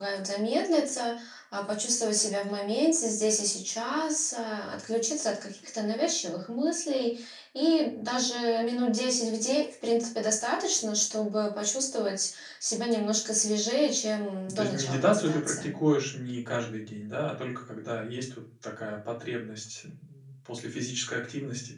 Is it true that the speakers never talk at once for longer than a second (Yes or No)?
No